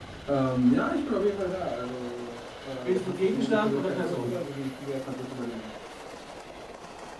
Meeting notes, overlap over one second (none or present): present